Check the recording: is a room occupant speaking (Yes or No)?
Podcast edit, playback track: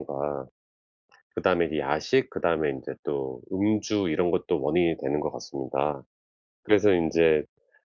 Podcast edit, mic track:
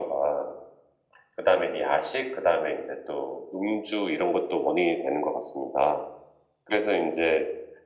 No